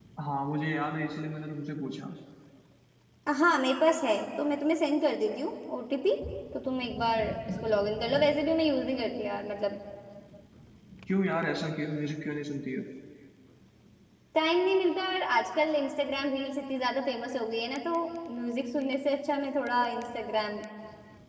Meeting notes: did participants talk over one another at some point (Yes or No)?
No